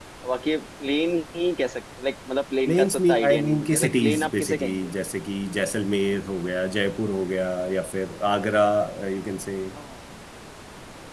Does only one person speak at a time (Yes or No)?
No